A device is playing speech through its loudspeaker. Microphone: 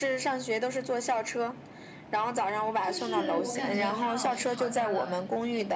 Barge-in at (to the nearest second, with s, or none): 3 s